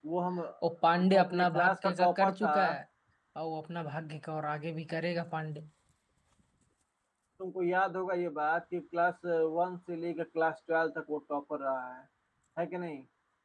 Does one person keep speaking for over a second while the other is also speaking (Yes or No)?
Yes